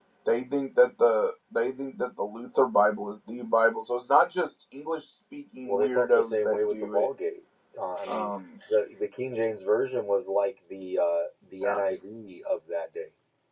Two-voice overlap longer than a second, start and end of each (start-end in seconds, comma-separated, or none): 5.7-7.1